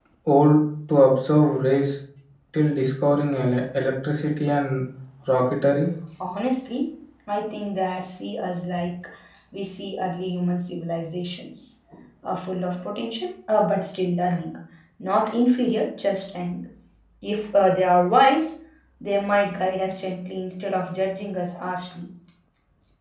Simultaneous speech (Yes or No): No